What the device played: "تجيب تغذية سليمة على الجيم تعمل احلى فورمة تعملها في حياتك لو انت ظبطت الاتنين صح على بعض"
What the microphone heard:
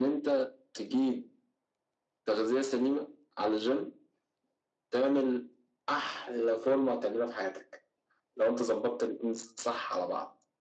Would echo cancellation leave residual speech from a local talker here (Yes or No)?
No